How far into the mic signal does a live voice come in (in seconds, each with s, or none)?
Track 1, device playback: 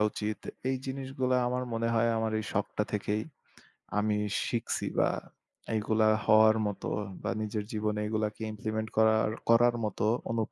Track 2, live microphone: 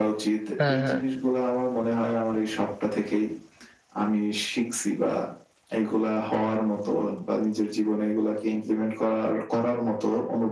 0.6 s